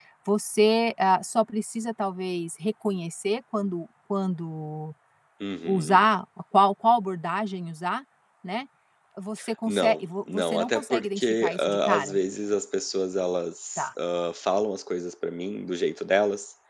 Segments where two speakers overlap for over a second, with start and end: 9.7-12.2

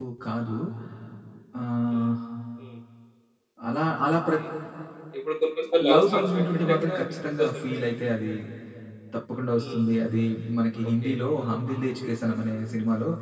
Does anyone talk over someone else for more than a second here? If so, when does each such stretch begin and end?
5.9-7.9

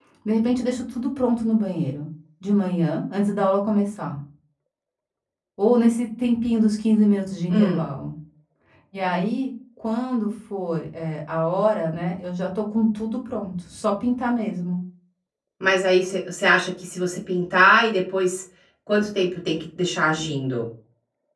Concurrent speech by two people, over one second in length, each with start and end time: none

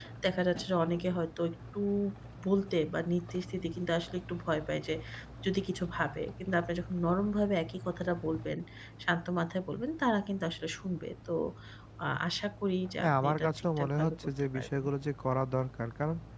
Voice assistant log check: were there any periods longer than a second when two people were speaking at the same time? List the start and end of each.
13.0-14.8

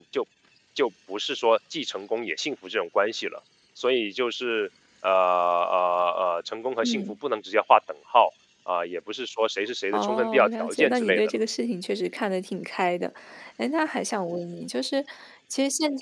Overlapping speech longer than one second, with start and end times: 9.9-11.4

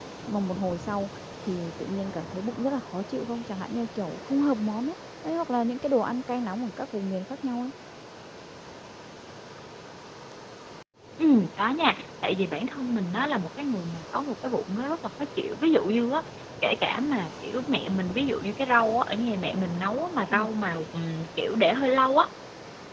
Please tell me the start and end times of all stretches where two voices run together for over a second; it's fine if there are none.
none

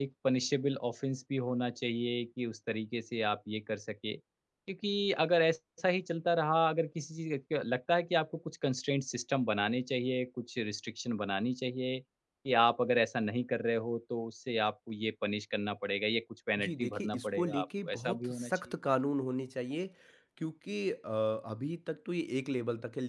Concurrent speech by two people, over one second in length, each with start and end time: 16.6-18.6

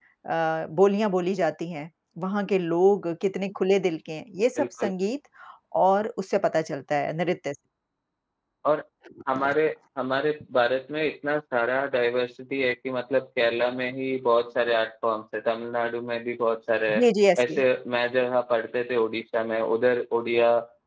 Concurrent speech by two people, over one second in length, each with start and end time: none

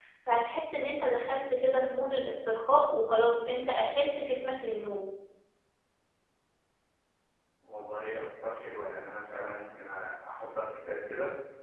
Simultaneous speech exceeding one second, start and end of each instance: none

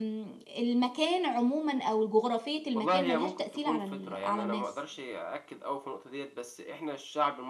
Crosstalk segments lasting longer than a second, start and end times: 2.8-4.6

